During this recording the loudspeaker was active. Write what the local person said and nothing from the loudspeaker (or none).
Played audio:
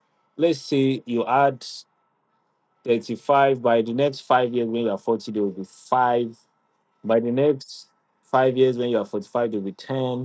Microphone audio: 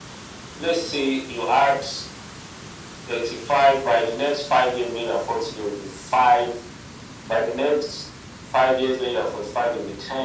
none